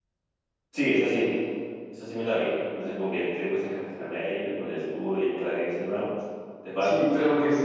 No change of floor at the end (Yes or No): No